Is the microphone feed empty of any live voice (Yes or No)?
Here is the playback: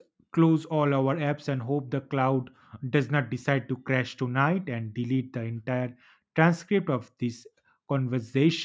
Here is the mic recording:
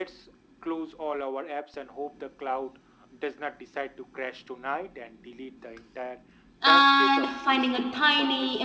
No